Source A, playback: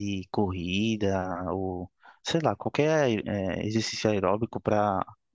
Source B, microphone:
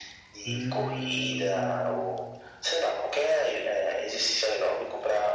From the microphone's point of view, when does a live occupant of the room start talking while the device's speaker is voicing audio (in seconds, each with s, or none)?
0.4 s